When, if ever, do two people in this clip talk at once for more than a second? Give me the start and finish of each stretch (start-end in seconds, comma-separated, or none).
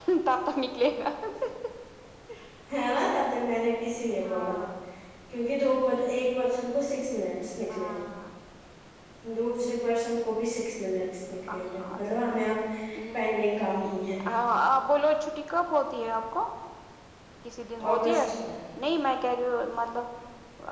none